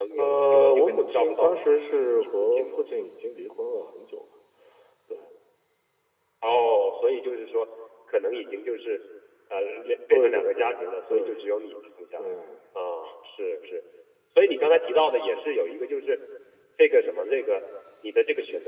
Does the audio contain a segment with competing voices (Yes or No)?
Yes